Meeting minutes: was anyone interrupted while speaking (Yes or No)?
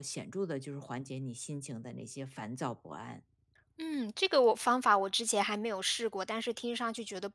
No